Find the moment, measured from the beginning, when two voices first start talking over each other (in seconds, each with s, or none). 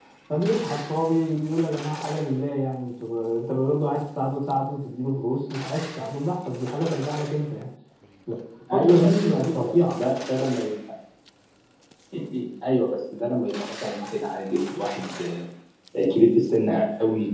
8.7 s